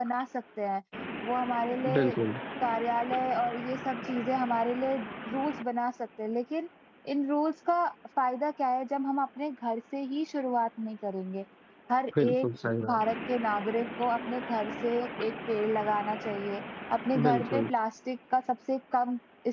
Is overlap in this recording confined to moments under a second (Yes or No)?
Yes